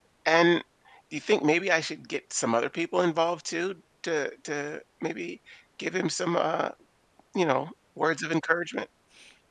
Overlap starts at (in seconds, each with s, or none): none